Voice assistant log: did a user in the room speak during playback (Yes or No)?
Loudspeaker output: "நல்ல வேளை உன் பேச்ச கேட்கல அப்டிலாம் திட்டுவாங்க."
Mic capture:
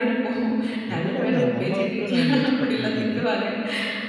Yes